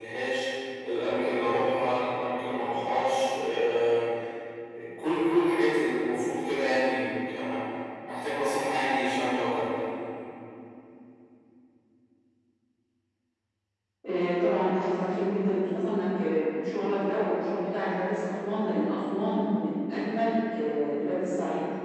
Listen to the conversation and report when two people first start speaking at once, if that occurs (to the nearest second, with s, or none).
none